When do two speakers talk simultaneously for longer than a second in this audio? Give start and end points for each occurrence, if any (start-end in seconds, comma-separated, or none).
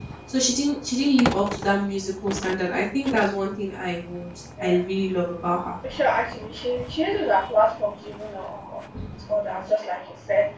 none